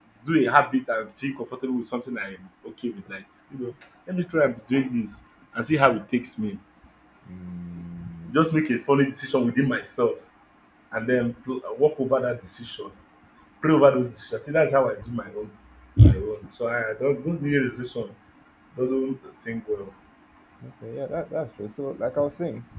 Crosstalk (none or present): none